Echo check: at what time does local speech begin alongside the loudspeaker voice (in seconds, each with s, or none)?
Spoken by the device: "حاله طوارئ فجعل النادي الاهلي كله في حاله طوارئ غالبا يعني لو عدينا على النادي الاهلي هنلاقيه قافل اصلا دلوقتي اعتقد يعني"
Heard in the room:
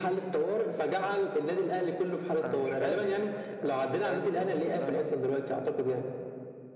2.4 s